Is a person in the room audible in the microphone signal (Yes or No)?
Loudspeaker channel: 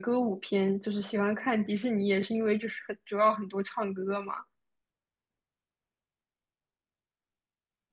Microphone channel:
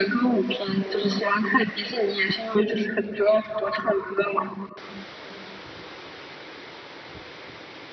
No